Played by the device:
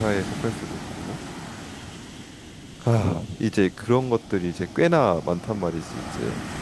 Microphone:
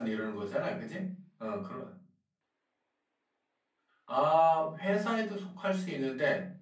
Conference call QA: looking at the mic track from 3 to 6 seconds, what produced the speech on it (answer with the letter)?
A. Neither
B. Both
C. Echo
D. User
D